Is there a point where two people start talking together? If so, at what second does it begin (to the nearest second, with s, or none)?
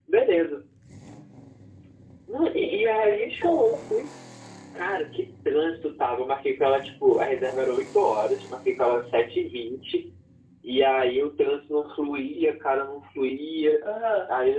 2 s